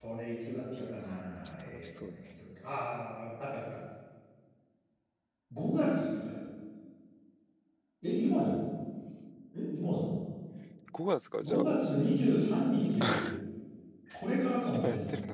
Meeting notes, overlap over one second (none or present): present